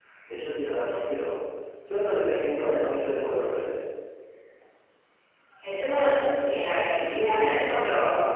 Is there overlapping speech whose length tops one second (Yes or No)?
No